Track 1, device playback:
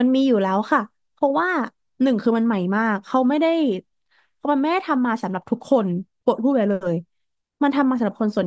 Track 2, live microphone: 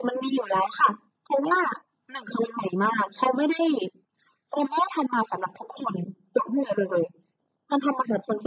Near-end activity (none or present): none